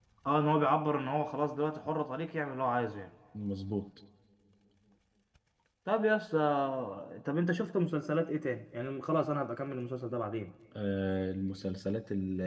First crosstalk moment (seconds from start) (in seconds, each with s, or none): none